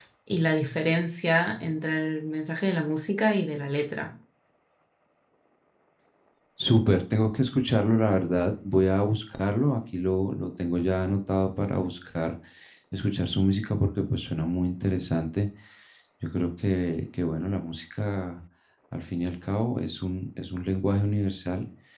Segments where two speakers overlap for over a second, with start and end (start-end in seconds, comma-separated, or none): none